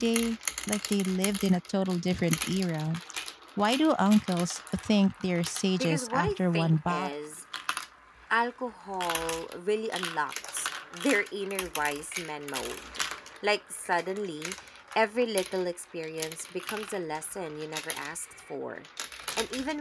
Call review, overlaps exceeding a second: present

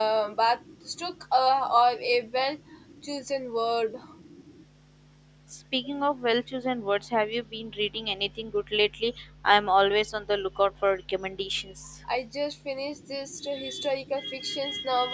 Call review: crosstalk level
none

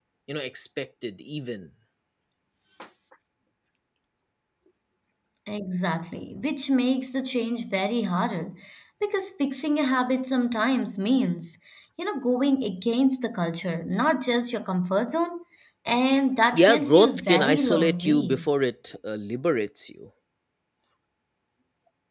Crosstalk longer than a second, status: present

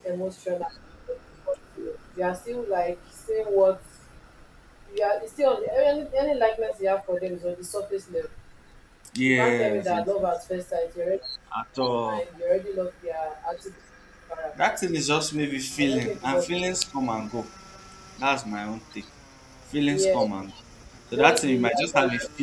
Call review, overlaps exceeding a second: present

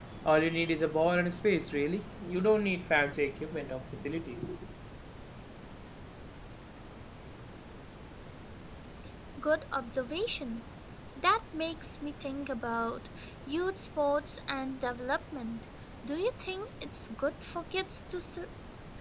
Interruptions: none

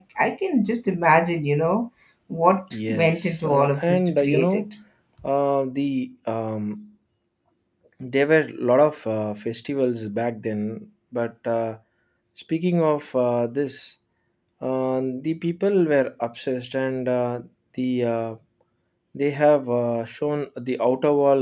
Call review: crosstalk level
present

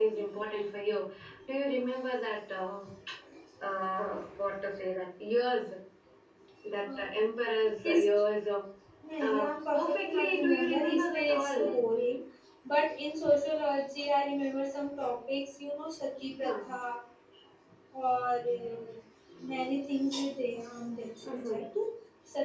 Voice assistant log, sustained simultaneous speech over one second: present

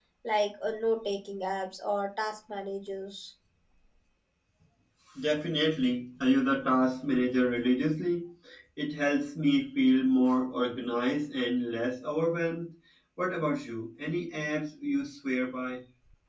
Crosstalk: none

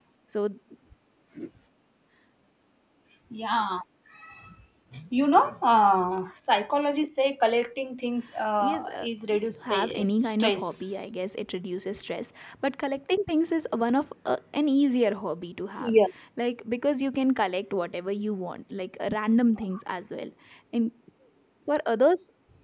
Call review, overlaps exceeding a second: present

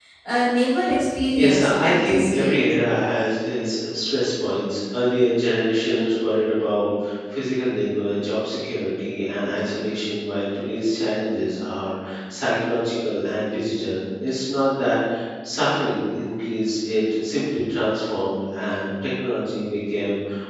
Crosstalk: present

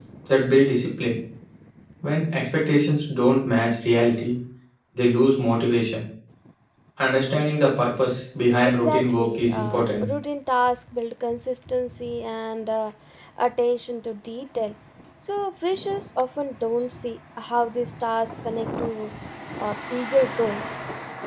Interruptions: present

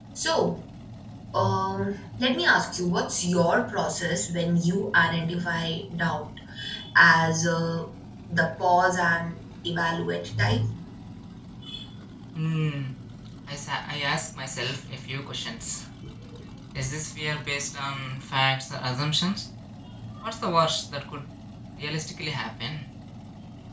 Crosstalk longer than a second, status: none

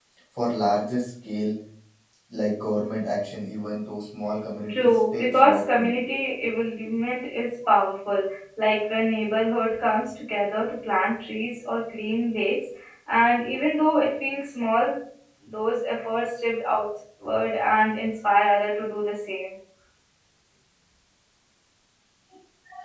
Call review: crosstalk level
present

